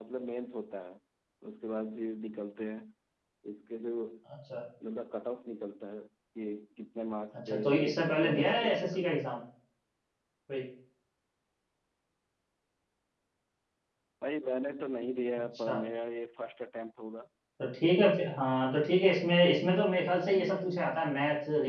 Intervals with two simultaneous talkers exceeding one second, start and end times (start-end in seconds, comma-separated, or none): 7.3-9.1